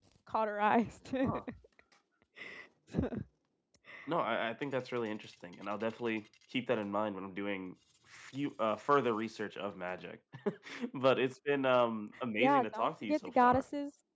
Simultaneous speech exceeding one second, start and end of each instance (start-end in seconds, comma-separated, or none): 12.4-13.6